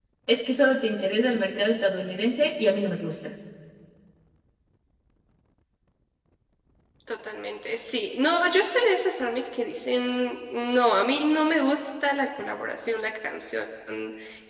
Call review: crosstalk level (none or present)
none